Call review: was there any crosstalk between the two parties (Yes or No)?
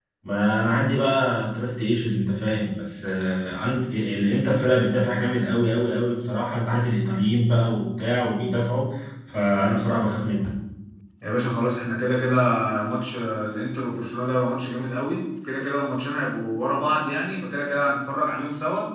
No